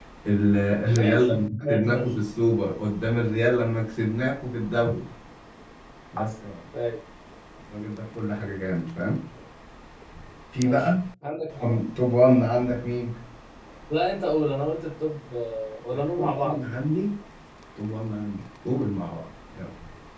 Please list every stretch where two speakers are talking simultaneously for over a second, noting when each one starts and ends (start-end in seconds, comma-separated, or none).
0.8-2.1